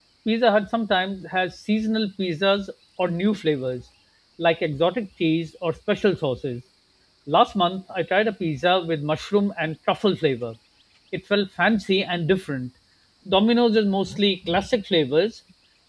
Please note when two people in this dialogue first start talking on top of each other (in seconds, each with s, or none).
none